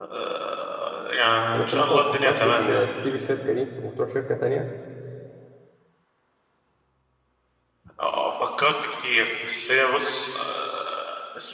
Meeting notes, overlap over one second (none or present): present